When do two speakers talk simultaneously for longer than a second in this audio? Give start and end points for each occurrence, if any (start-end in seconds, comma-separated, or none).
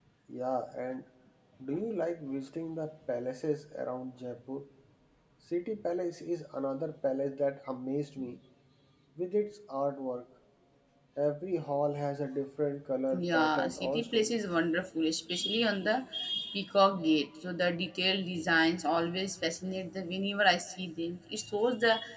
13.1-14.3